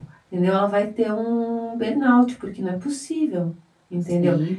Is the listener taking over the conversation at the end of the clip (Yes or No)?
No